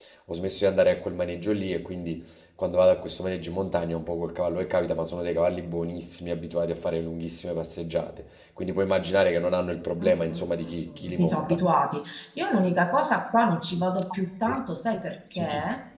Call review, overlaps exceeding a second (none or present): present